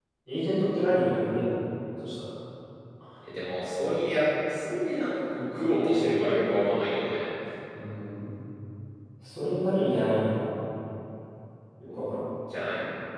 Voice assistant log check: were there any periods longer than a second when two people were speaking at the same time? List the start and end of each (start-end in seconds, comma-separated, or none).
none